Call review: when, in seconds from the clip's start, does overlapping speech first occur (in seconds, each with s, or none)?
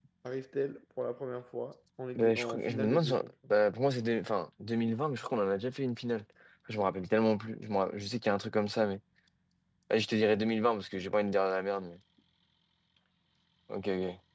2.1 s